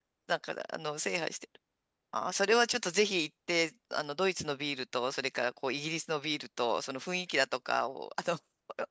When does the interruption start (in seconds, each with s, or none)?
none